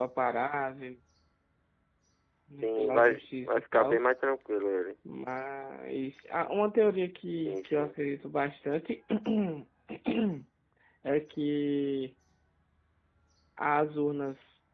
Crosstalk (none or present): present